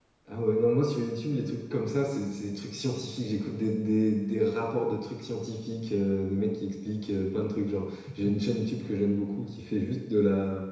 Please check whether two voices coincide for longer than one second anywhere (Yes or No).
No